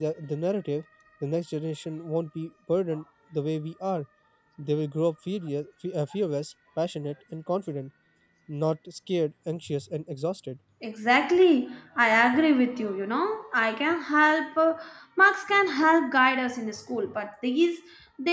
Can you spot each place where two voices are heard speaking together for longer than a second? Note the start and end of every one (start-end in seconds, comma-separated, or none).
none